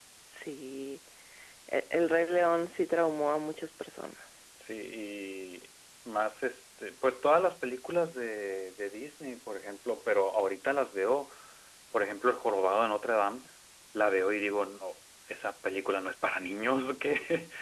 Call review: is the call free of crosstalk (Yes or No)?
Yes